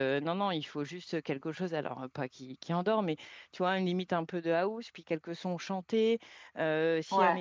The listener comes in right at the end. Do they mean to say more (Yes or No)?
No